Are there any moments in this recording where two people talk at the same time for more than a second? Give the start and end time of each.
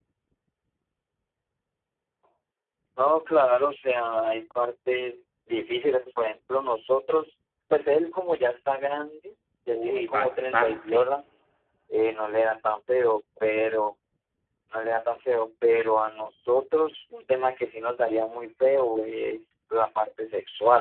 9.7-11.1

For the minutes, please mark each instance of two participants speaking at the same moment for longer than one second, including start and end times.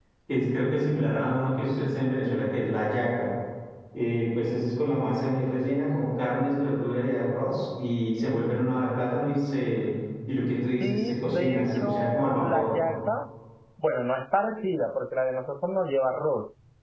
10.8-12.7

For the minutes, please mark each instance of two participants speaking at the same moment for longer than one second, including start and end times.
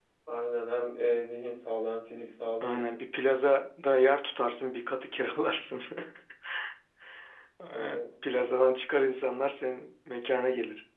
none

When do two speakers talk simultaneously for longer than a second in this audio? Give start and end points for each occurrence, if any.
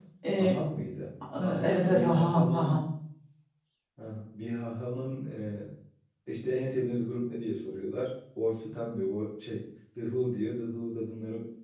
1.6-2.8

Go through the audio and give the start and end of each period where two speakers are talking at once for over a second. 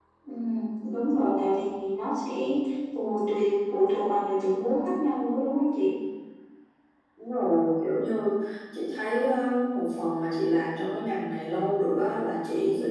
none

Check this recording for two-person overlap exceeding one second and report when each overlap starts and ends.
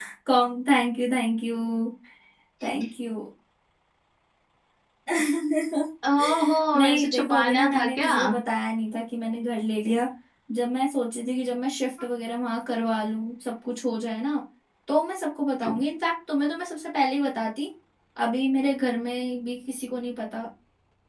6.7-8.1

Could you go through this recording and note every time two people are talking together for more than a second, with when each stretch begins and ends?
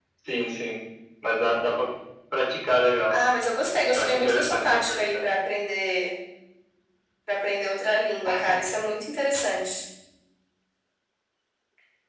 3.9-5.2

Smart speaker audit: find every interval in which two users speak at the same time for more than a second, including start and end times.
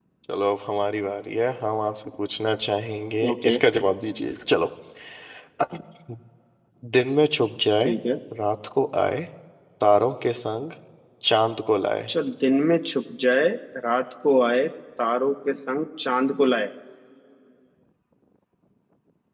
none

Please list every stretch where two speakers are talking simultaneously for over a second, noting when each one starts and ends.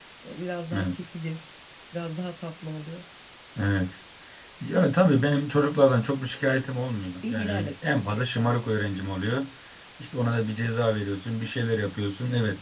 7.2-8.7

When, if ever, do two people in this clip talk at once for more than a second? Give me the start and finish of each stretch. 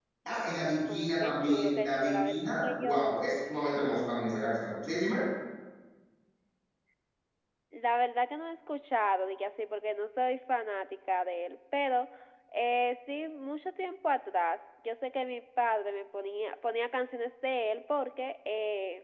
0.9-3.2

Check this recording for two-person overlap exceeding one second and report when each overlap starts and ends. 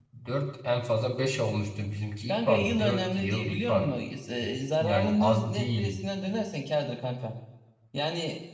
2.3-3.9, 4.8-6.0

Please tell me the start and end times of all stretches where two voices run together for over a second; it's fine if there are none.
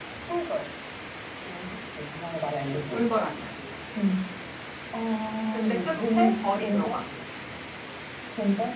5.5-7.0

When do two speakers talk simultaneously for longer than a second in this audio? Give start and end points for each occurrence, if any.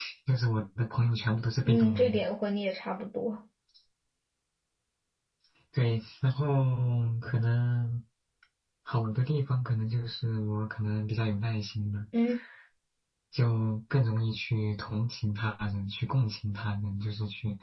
none

